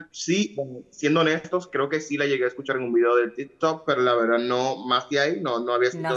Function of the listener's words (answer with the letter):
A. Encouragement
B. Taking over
B